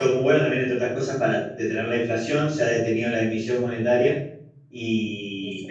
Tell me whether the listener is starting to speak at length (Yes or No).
No